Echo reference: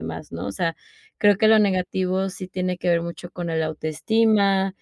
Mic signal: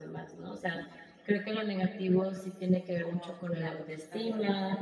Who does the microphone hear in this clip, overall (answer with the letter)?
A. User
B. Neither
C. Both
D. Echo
C